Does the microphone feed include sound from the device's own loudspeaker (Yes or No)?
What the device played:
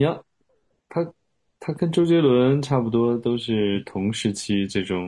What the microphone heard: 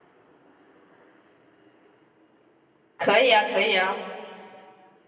No